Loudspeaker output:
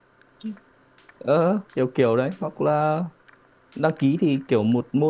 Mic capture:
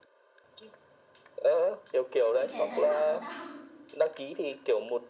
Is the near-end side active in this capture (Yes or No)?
Yes